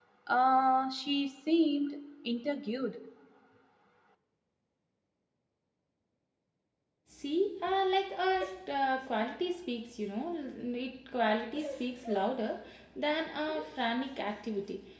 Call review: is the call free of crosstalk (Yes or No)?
Yes